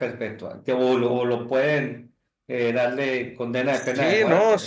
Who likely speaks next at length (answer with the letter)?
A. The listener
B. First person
A